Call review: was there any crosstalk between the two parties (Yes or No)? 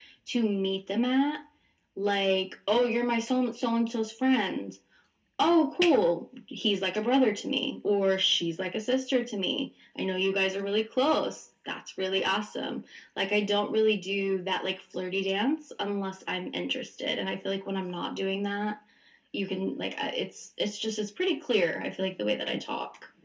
No